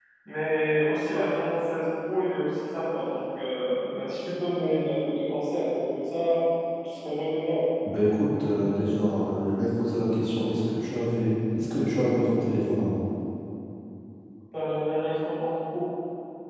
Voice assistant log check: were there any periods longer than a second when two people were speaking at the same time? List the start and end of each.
none

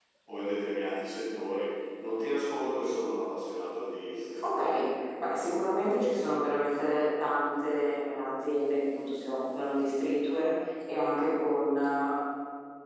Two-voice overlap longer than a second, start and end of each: none

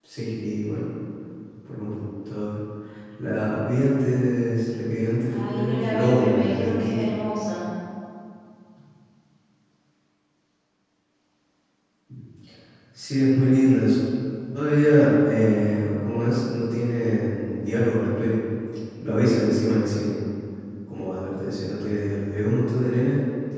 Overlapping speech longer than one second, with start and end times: 5.5-7.1

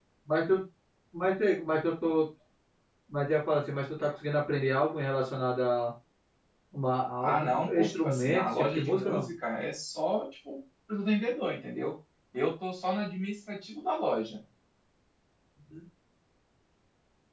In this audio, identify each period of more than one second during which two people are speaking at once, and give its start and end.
7.2-9.3

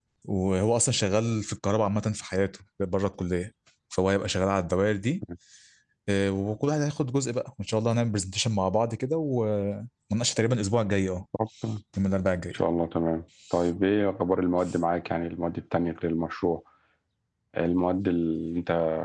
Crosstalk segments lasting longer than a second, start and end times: none

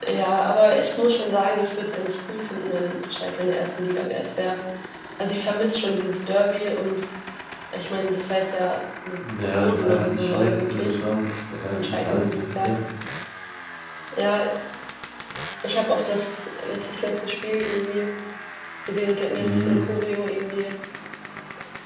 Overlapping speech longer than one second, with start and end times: 9.6-11.0

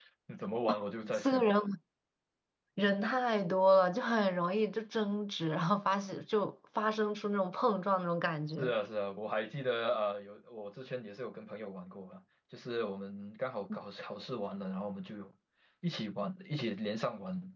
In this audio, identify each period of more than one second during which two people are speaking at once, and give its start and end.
none

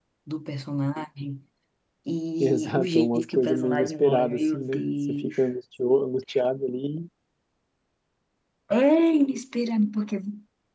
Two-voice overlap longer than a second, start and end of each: 2.4-5.3

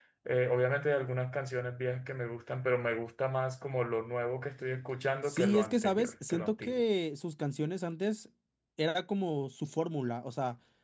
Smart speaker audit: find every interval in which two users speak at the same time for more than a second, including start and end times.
5.2-6.8

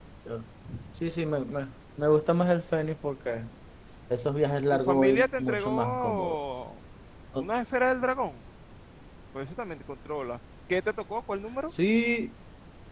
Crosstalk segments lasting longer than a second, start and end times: 4.7-6.4

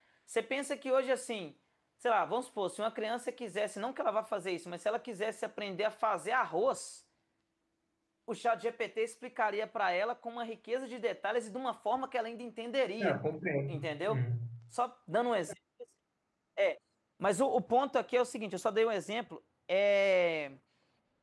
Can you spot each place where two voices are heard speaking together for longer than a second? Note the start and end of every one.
none

